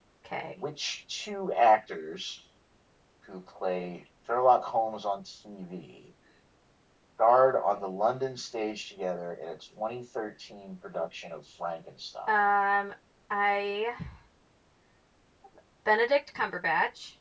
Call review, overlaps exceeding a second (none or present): none